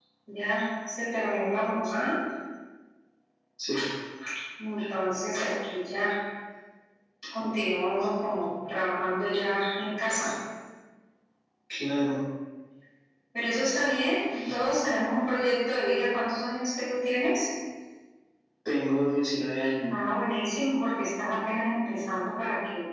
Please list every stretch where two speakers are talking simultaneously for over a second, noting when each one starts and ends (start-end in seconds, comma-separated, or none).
none